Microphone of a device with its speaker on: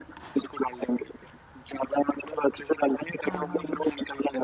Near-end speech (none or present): present